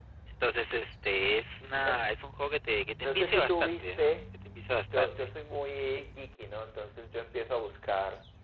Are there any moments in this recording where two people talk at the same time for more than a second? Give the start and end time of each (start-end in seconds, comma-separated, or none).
3.0-4.2